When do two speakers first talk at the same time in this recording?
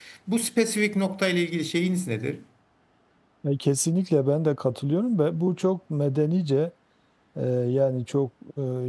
none

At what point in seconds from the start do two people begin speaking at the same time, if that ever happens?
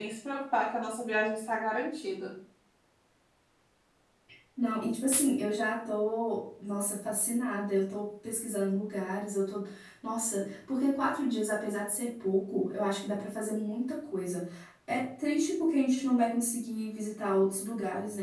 none

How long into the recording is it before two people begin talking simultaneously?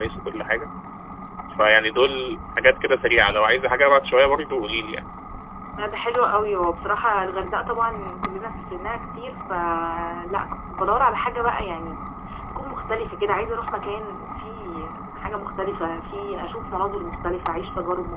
none

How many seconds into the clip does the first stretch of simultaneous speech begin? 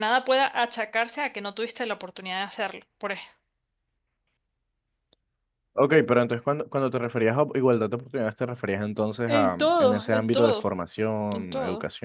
9.3 s

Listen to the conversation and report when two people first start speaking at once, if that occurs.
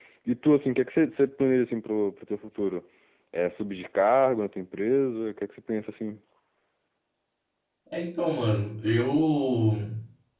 none

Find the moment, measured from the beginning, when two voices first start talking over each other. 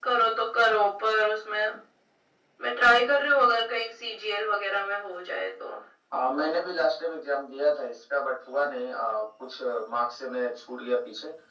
none

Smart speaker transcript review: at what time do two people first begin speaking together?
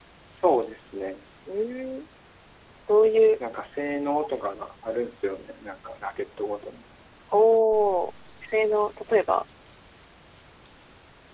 none

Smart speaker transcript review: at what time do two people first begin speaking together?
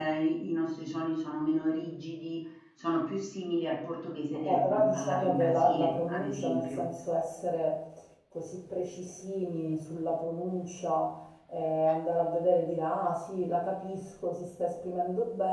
4.3 s

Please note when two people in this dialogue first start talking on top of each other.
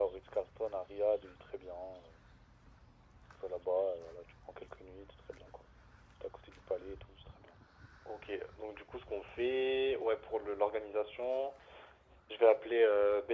none

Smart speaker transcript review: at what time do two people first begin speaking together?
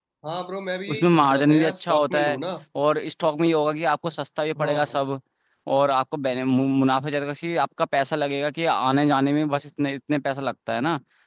0.9 s

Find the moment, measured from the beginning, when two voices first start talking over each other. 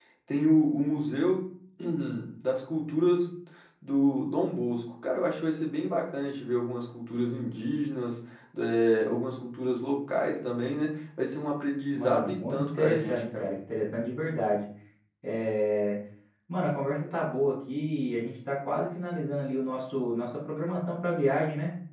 11.9 s

